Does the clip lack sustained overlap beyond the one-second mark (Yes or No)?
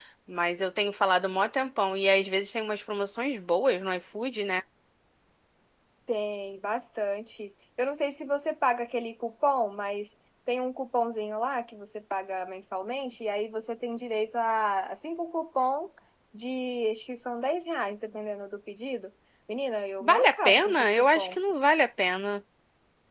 No